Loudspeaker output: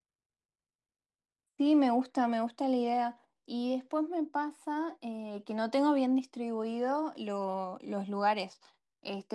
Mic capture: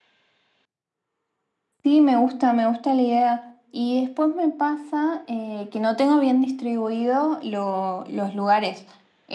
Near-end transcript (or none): none